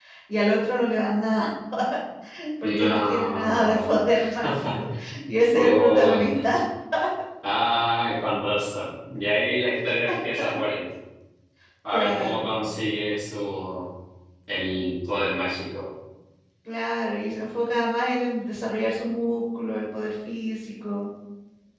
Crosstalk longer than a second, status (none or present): present